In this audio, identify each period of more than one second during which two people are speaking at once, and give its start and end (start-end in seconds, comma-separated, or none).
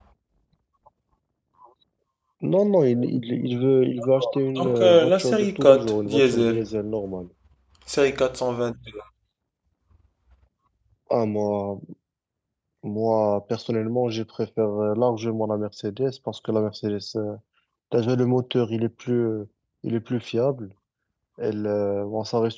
4.6-6.7